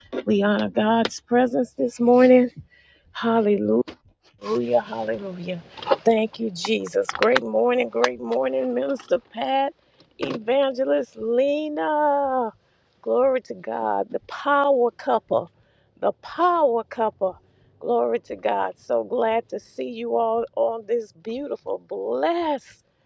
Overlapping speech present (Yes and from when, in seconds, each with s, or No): No